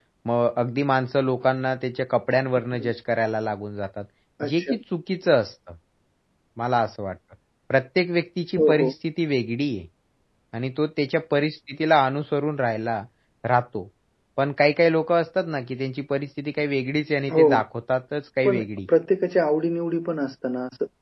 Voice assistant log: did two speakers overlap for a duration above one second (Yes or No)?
No